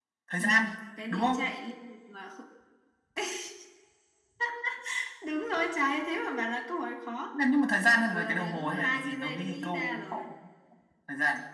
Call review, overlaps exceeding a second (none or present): present